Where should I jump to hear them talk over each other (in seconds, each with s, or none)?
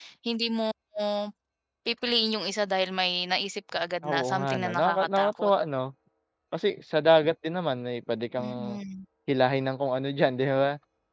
4.0 s